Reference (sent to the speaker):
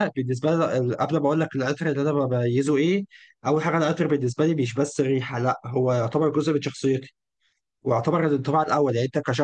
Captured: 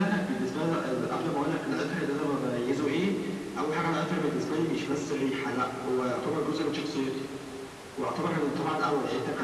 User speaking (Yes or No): No